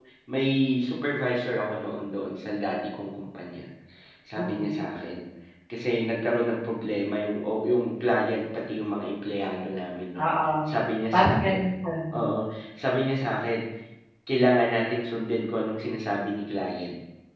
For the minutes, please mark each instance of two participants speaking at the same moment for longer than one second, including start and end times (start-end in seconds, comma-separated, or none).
none